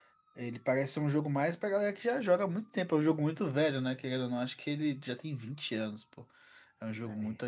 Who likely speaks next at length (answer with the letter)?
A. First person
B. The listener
A